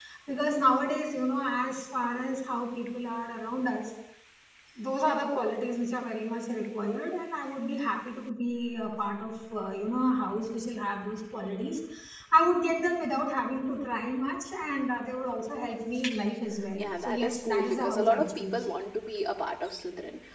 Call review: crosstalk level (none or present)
present